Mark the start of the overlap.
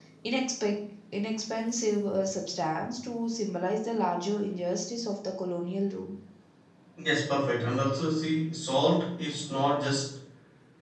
none

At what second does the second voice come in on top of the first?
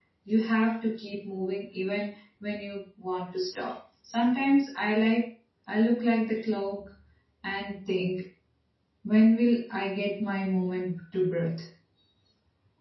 none

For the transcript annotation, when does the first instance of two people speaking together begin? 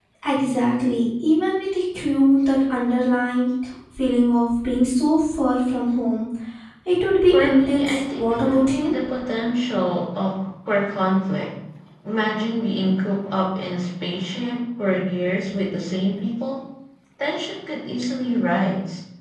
7 s

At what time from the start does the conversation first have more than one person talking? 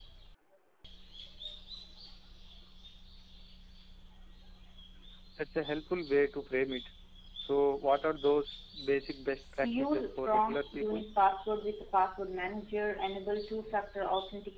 10 s

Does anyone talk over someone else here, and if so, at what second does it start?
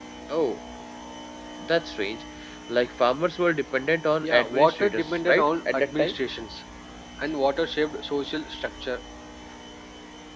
4 s

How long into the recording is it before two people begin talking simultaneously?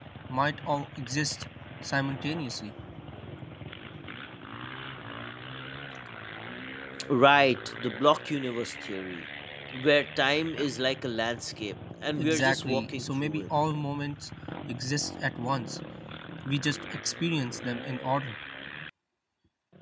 12 s

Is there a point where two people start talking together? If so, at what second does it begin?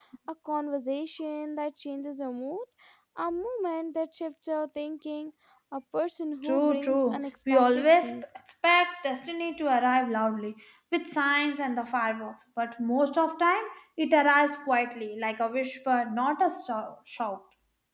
6 s

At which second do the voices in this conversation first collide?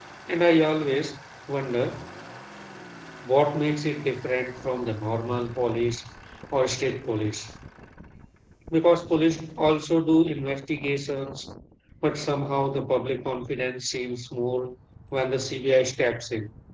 none

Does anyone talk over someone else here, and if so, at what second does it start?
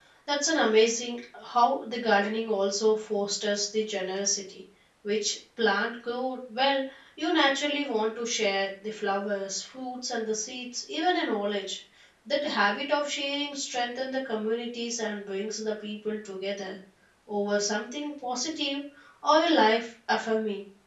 none

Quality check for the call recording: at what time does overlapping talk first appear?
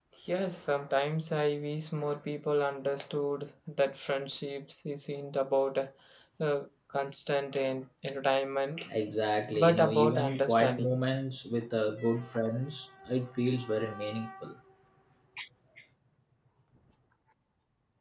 10 s

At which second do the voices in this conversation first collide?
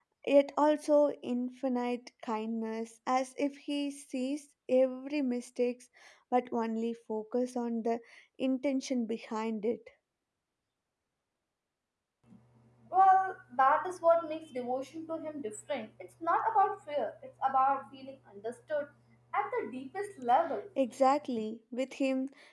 none

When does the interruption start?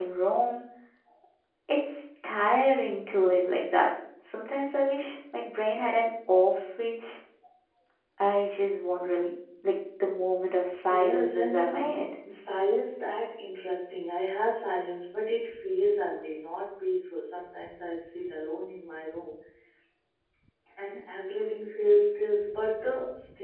11 s

